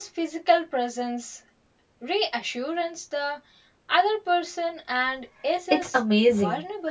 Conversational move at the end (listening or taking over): taking over